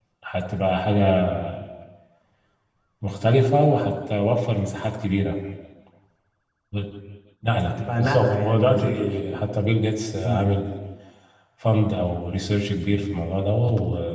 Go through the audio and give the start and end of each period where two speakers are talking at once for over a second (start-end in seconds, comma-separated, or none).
7.7-8.9